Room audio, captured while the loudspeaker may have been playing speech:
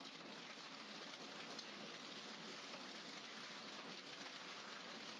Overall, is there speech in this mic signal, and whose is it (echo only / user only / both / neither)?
neither